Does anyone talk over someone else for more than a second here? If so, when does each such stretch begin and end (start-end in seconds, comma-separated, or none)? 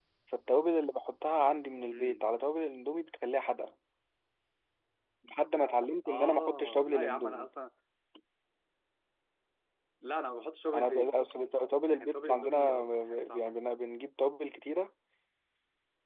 6.0-7.5, 11.9-13.5